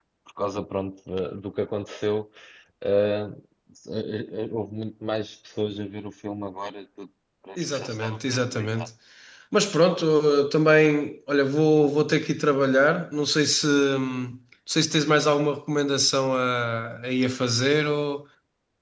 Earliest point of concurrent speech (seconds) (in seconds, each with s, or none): 7.6 s